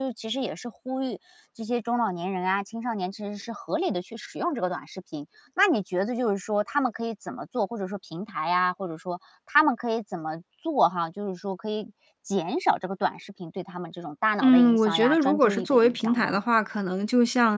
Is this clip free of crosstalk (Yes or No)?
No